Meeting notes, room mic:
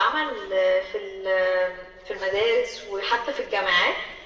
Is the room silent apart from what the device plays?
Yes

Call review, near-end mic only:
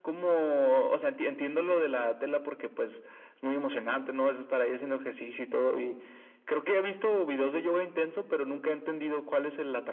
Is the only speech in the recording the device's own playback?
Yes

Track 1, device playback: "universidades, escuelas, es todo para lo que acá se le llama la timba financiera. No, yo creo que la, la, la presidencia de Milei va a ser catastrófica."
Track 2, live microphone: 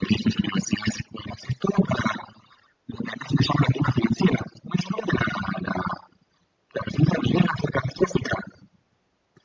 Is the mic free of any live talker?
Yes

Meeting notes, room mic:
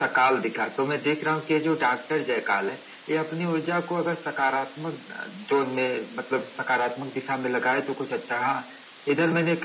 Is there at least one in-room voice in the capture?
No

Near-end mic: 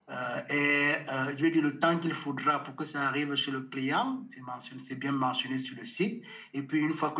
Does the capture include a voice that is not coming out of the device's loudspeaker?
Yes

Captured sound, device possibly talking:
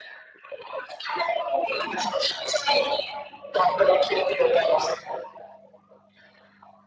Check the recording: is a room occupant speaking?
No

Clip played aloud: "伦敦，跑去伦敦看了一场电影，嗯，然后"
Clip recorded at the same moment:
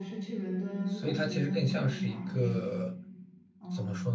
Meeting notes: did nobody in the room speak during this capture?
No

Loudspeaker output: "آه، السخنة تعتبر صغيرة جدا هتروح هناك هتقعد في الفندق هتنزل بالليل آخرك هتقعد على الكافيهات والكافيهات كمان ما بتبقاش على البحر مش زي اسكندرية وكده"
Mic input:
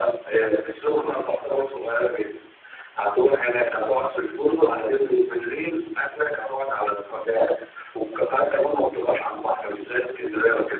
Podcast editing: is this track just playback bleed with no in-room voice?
Yes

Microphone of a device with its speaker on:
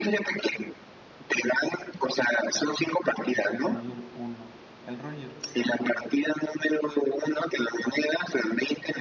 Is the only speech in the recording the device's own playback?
No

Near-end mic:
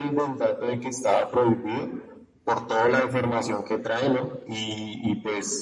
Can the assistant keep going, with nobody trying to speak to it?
Yes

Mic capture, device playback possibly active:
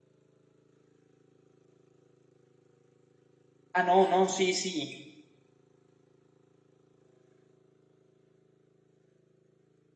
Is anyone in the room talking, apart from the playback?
Yes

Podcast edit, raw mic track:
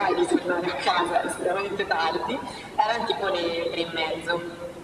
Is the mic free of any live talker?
Yes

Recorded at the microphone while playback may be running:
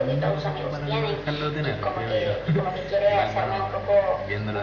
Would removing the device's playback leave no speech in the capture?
No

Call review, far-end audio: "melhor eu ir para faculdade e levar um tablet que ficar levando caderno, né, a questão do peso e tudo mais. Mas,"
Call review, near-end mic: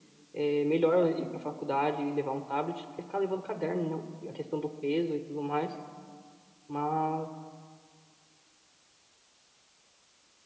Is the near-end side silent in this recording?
Yes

